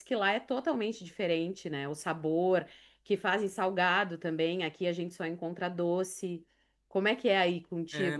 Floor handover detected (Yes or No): Yes